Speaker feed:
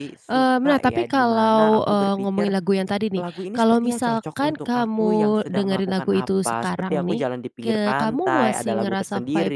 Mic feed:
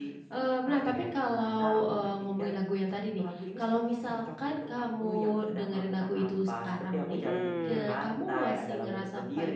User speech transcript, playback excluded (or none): Mhm.